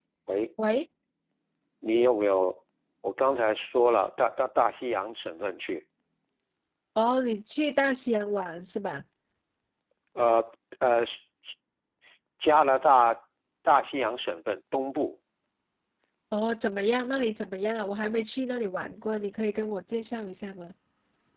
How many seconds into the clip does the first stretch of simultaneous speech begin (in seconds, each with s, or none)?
none